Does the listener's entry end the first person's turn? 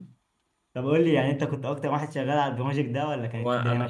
Yes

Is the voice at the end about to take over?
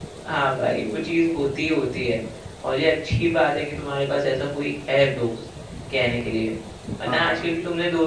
No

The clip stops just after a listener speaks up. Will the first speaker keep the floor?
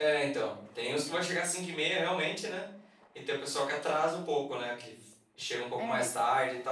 Yes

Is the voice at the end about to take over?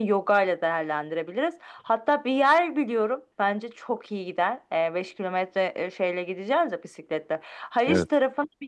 No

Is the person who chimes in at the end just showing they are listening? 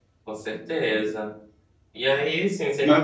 Yes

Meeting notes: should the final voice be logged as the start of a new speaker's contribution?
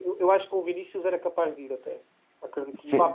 No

